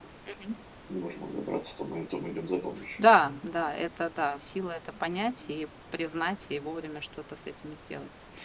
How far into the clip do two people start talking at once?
none

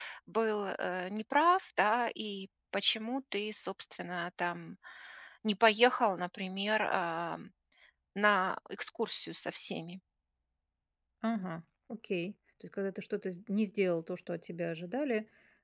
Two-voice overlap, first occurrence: none

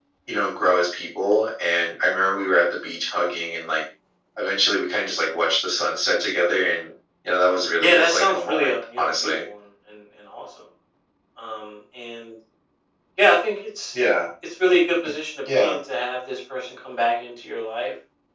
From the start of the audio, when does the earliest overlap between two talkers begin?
8 s

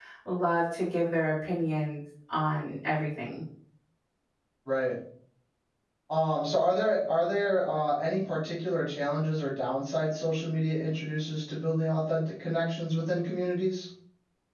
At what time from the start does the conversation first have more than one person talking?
none

